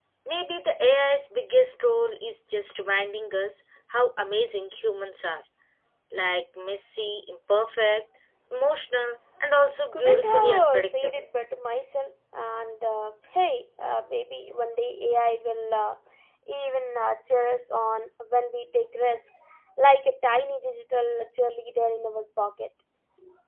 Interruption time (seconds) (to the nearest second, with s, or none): 10 s